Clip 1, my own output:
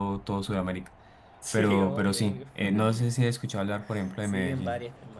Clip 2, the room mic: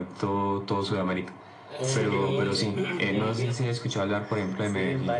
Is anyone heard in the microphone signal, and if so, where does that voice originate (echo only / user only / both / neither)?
both